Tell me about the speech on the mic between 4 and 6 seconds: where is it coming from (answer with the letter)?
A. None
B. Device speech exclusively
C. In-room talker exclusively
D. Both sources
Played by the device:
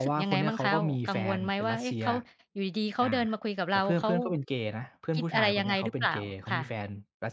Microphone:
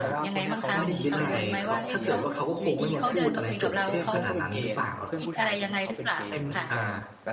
D